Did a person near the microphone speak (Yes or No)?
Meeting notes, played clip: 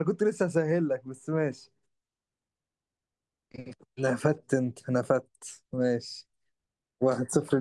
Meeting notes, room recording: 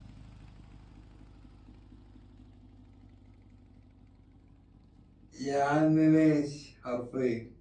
Yes